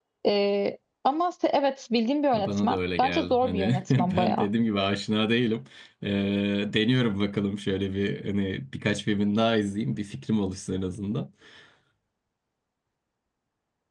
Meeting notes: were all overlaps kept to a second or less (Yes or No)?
No